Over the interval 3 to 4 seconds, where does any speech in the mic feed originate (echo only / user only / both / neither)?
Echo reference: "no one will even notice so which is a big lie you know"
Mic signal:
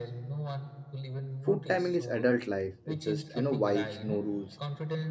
both